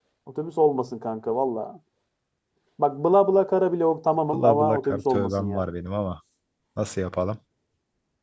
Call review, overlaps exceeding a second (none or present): present